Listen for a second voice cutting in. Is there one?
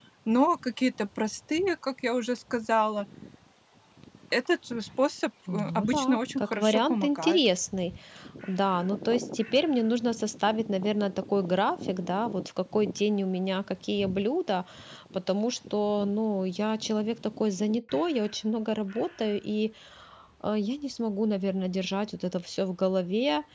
Yes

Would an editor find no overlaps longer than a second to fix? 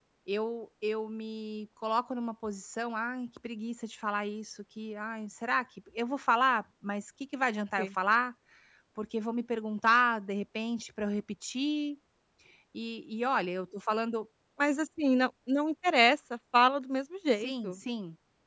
Yes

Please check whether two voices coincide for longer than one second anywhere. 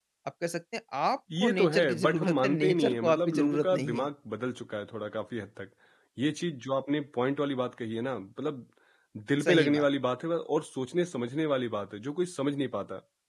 Yes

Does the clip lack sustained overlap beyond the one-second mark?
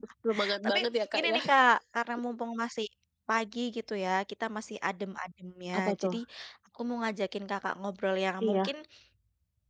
Yes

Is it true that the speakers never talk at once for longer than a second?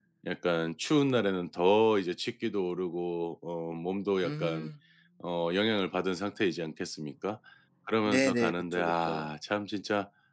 No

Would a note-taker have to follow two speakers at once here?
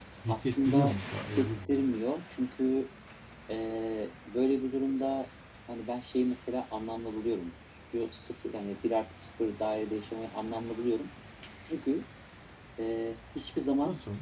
Yes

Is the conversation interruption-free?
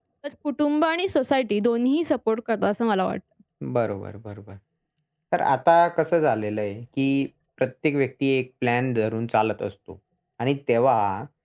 Yes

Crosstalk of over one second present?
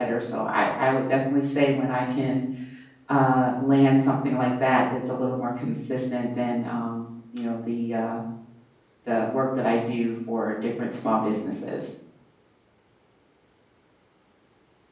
No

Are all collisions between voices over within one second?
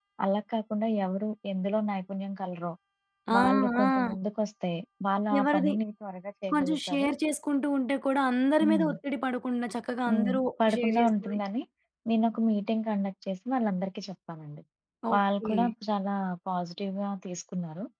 No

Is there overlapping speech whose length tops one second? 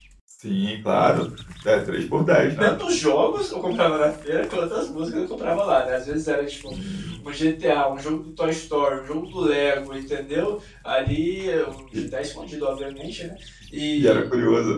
No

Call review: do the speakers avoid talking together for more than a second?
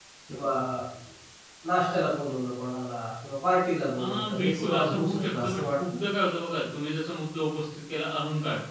No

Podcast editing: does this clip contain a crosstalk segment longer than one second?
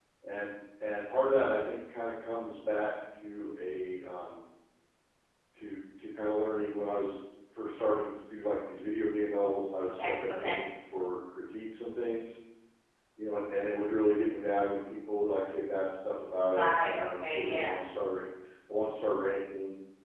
Yes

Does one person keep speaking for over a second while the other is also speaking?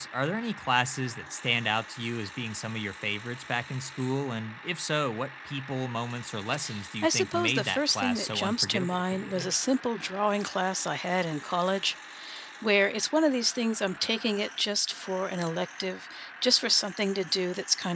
Yes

